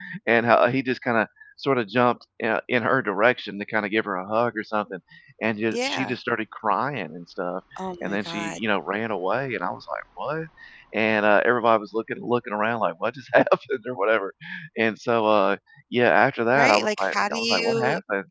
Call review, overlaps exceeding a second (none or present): present